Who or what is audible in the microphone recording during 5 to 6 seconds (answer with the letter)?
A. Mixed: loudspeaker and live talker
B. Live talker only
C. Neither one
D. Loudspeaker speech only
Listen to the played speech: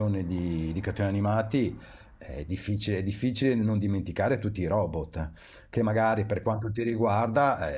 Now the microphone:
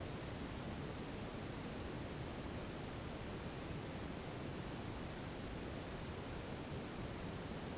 C